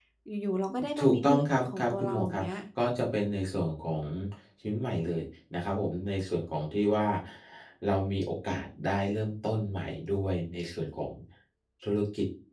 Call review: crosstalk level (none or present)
present